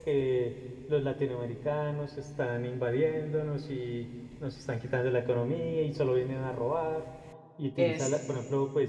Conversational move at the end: listening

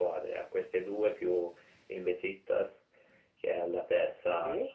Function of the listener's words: listening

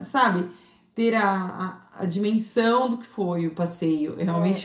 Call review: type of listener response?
taking over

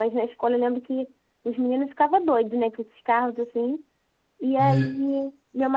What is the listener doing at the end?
listening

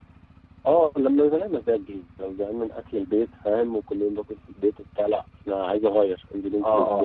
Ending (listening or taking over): taking over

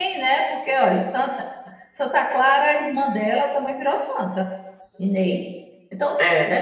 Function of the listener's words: listening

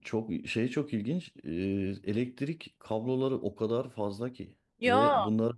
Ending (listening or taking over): listening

